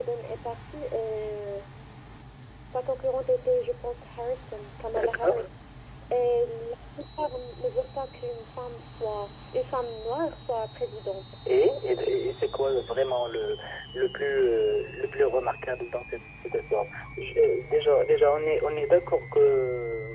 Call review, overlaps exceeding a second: none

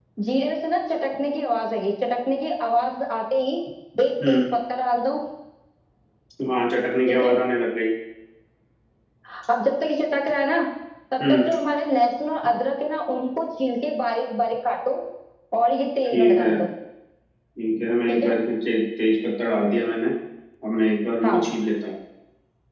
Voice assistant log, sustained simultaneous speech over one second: none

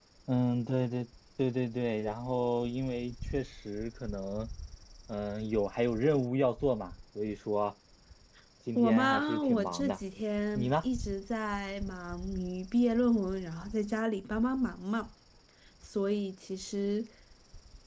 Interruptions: present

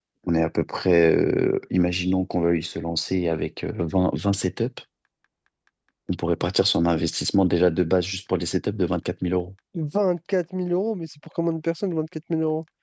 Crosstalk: none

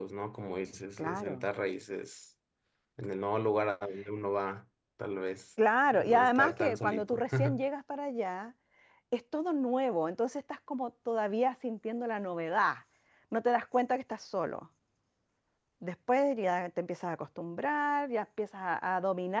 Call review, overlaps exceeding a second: present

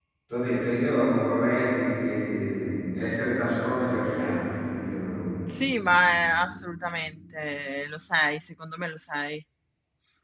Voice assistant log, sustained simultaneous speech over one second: none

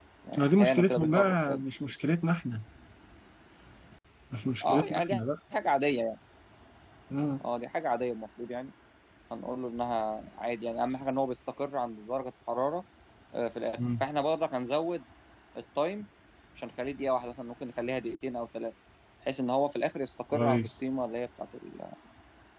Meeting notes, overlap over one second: present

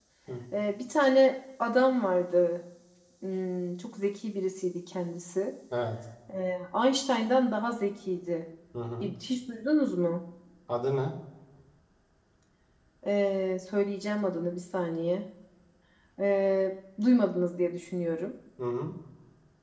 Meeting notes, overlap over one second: none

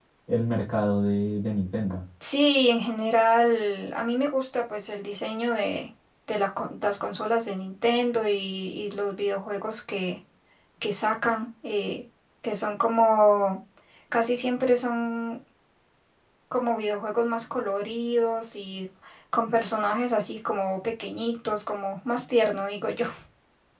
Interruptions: none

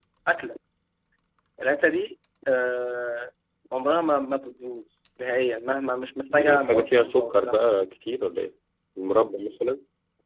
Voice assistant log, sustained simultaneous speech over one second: present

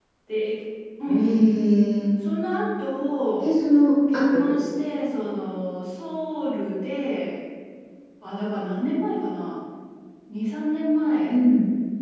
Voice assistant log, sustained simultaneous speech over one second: none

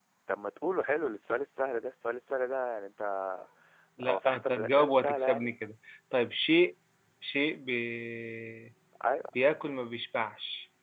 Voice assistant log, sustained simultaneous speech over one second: present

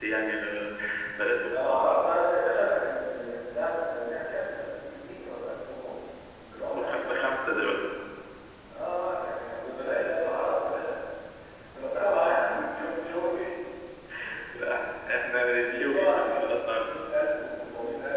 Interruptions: present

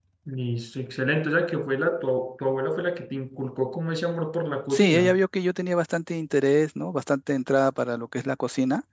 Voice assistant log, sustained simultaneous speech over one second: none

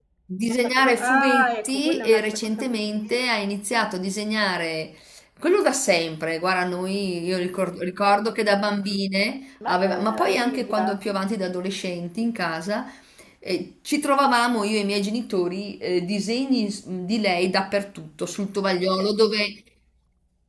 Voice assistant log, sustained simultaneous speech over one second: present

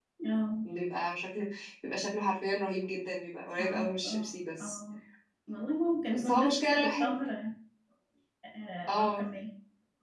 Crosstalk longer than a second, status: present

